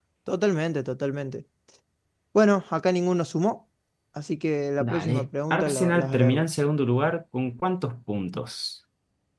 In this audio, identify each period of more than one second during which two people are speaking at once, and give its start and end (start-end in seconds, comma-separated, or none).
4.8-6.5